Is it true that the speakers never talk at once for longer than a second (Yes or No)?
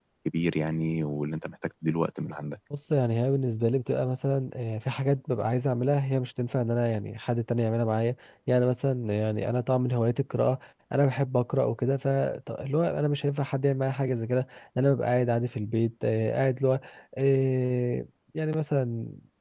Yes